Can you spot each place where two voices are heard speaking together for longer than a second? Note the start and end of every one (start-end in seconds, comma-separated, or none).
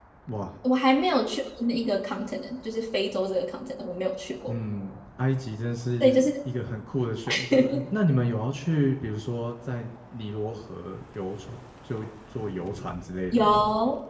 none